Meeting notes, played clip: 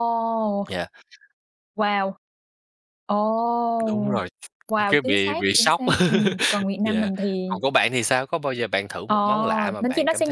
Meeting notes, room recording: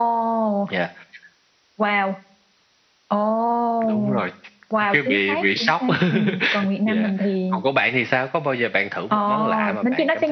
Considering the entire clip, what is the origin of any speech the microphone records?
echo only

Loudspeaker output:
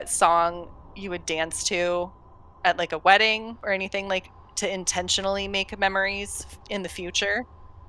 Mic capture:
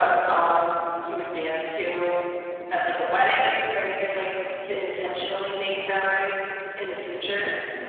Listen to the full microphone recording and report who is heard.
echo only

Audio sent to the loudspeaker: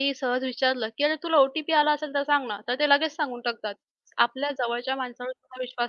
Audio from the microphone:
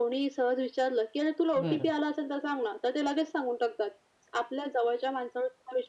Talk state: both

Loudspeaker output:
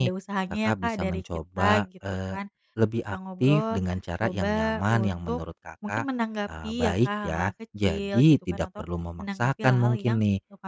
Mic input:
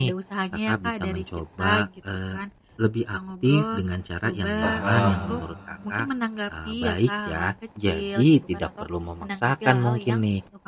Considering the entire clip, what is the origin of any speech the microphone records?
both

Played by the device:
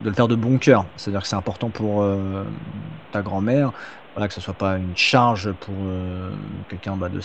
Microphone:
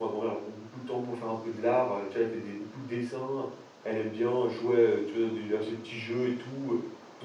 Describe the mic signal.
user only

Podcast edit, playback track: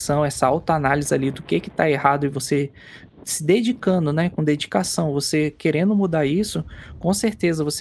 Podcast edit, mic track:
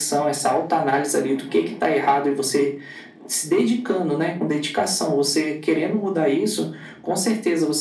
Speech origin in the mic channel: echo only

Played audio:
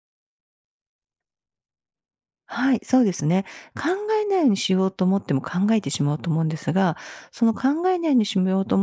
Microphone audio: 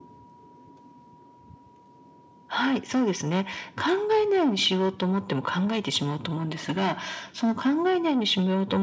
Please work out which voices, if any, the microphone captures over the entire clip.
echo only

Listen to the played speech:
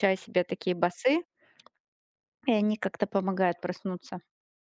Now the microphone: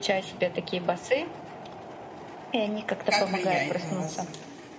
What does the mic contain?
both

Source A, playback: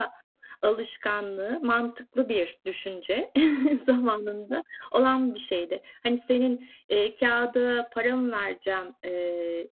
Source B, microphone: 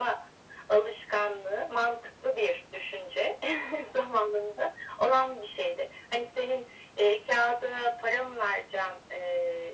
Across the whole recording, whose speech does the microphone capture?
echo only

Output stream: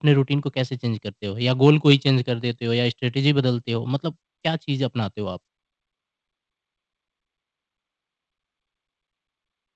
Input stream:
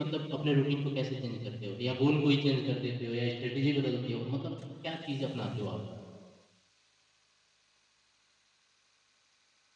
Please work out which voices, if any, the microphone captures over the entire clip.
echo only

